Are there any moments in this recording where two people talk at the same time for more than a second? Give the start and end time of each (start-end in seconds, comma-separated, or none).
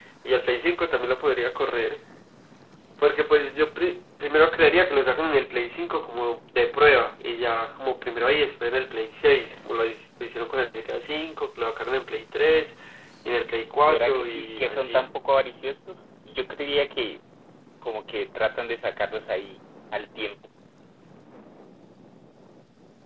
13.8-15.0